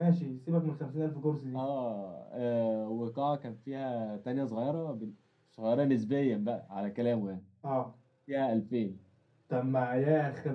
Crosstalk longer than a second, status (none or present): none